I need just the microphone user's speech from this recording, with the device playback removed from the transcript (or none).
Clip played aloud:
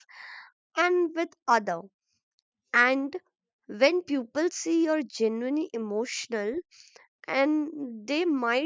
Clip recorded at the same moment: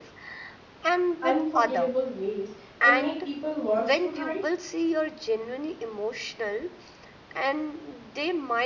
unforgettable ways and make people want to hide.